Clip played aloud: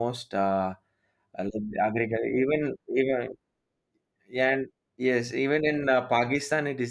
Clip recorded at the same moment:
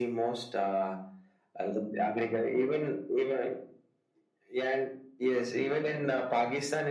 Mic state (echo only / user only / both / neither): echo only